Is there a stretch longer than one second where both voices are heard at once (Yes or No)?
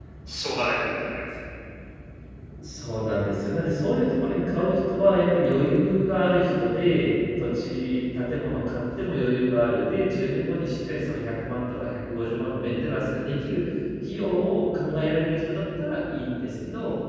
No